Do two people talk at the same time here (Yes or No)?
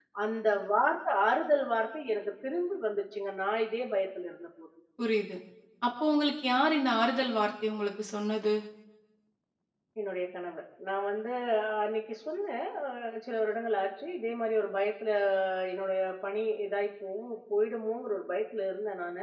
No